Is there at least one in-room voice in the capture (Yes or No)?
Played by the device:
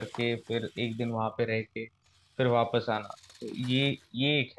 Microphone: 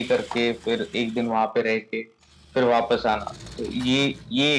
No